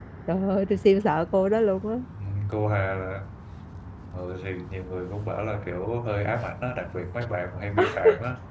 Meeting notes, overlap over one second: none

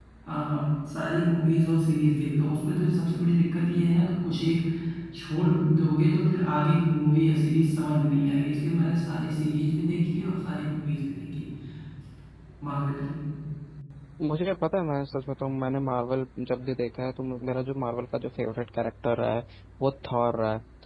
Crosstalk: none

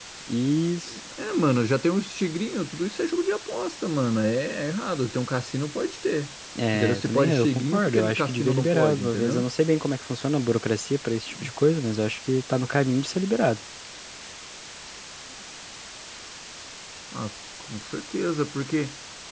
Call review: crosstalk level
present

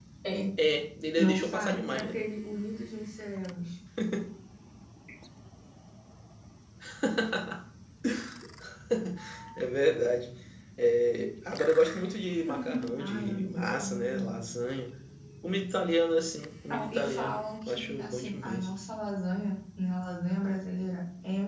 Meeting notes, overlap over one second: present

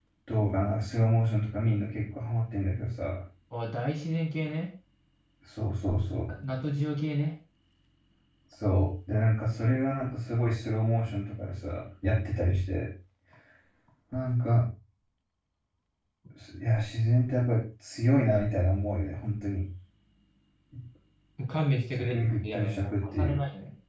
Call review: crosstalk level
present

